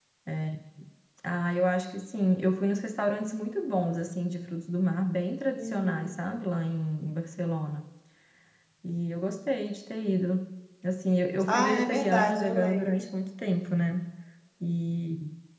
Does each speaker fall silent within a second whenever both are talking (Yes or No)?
No